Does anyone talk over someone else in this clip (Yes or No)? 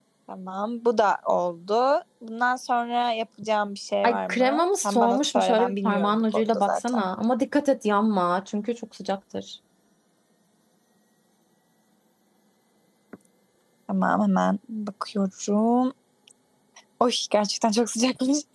Yes